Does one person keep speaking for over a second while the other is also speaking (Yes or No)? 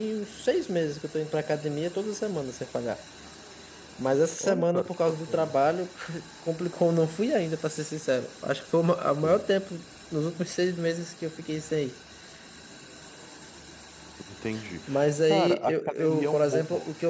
Yes